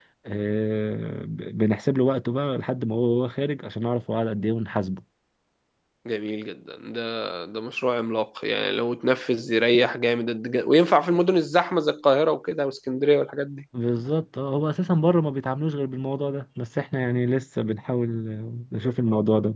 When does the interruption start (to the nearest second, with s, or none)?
none